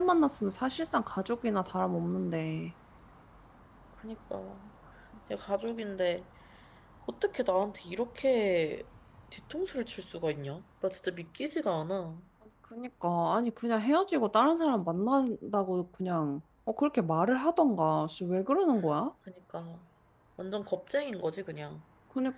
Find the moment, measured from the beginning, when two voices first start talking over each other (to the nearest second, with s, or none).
none